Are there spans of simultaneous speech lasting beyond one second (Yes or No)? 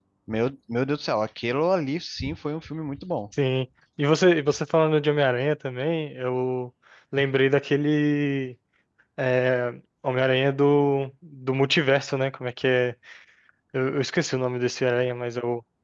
No